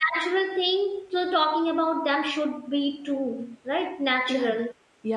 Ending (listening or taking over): taking over